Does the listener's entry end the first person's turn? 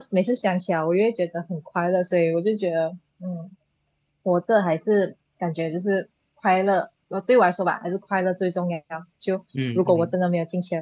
No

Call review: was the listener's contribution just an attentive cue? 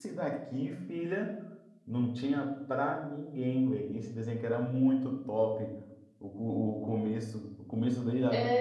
Yes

